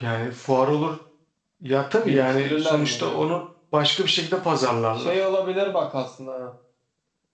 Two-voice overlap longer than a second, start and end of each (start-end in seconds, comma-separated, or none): 2.0-3.2